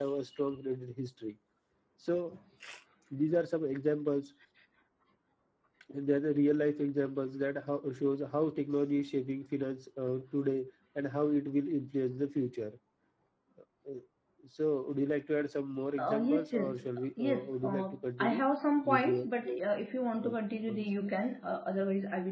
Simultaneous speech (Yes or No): Yes